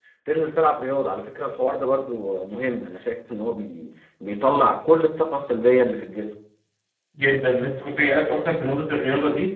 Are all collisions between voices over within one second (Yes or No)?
Yes